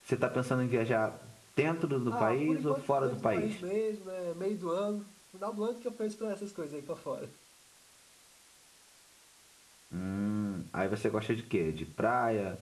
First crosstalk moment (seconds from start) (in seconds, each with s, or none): 2.1 s